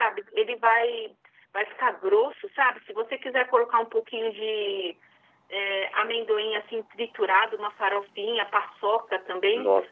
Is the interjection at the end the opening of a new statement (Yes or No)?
No